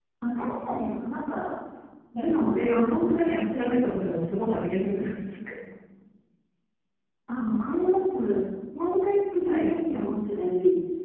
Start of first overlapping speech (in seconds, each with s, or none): 2.1 s